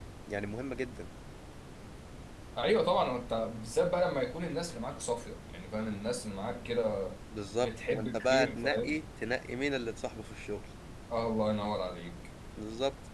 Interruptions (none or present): present